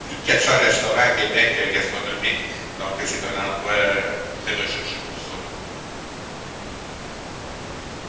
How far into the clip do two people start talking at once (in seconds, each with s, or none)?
none